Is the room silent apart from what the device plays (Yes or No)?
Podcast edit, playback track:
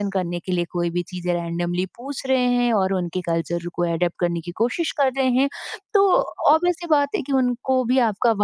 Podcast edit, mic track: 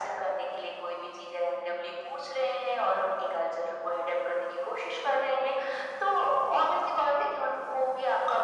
Yes